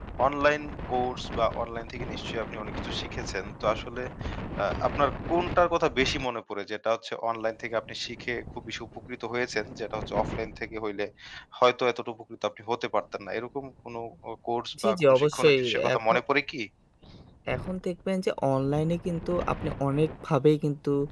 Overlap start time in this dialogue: 14.8 s

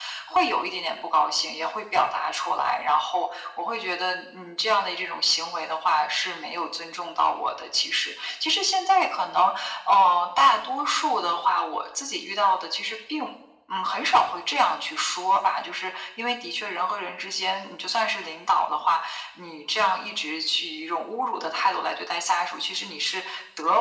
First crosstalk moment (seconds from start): none

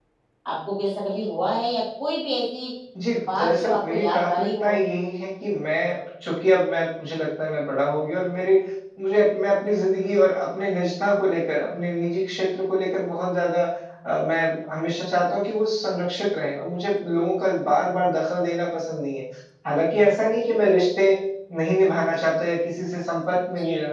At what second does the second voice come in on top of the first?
3.4 s

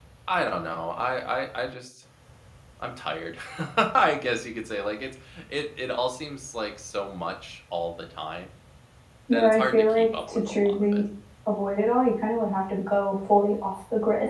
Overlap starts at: 9.3 s

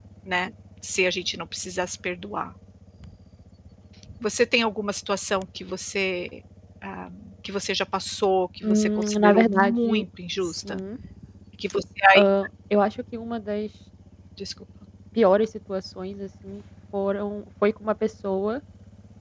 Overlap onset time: 8.6 s

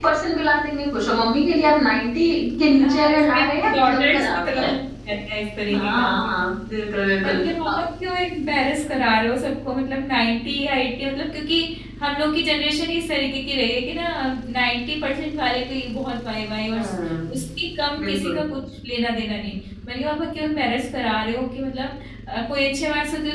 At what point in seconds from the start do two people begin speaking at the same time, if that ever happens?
2.8 s

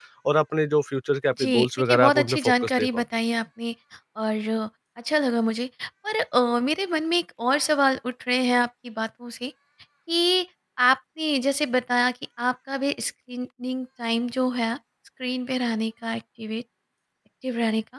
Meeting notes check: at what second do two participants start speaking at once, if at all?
1.4 s

